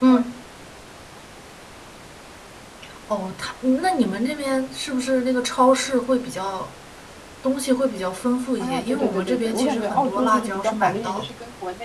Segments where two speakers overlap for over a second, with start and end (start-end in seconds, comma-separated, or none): 8.6-11.2